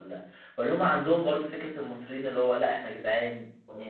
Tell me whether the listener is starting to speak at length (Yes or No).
No